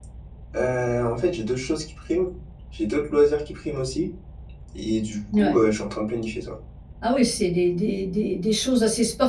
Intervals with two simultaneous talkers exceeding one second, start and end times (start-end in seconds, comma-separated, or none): none